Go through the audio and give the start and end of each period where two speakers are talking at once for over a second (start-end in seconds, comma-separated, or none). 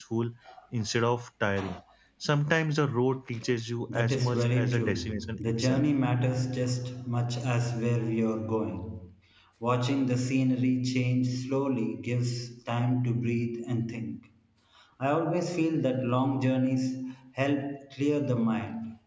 3.9-5.8